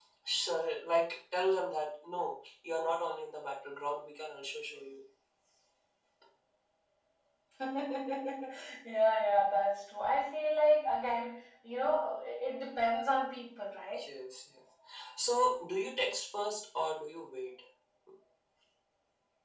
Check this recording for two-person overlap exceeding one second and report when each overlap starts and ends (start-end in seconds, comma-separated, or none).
none